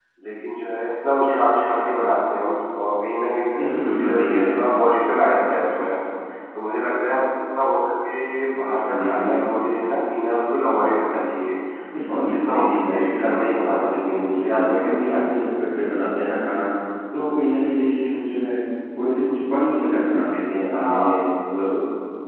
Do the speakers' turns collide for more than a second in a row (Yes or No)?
Yes